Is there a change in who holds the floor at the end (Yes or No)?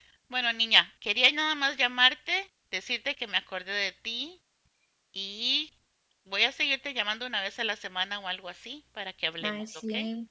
Yes